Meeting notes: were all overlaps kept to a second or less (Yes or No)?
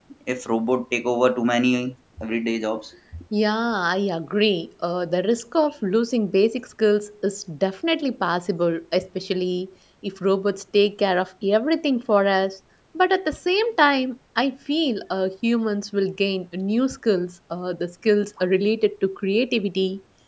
Yes